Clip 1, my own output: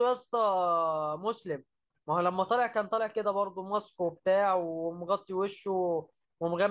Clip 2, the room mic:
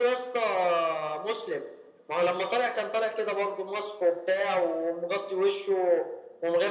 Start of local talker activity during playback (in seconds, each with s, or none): none